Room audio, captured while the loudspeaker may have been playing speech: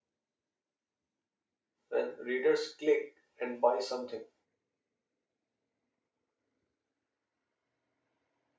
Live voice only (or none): when readers click and buy something.